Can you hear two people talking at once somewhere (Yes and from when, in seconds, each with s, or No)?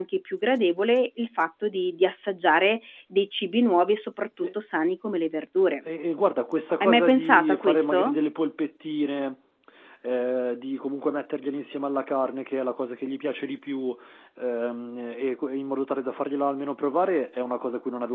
Yes, from 6.8 s